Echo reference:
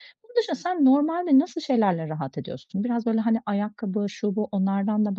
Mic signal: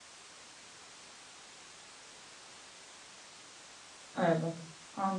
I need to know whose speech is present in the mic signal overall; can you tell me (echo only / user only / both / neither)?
user only